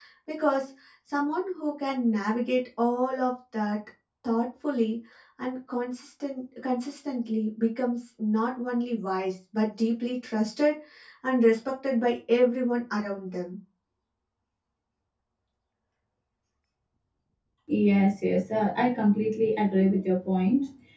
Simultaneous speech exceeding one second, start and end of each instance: none

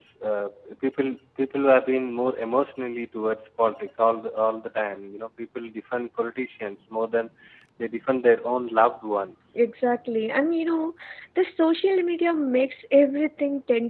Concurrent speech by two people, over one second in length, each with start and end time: none

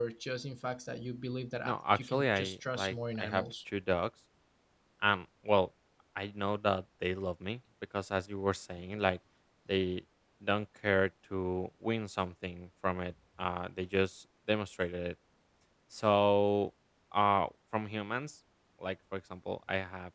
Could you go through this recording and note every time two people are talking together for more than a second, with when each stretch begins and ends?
1.6-3.4

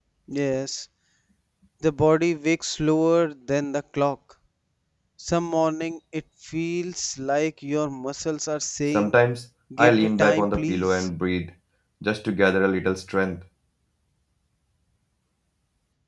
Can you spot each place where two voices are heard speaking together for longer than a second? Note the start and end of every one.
9.8-11.1

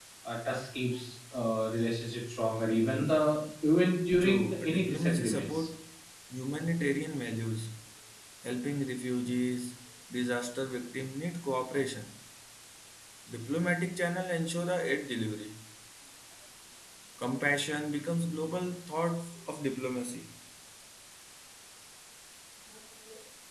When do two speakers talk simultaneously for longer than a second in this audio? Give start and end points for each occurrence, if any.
4.2-5.7

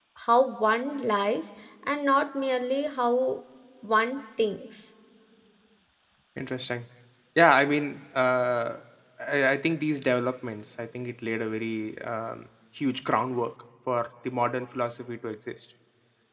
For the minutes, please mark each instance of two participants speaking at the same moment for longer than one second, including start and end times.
none

